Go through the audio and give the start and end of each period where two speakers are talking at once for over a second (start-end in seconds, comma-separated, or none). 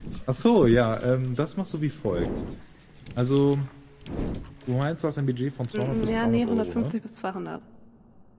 5.7-7.0